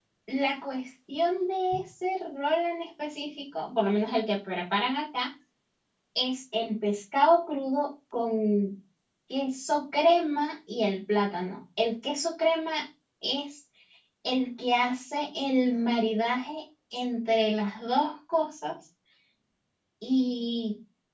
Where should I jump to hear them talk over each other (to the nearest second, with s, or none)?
none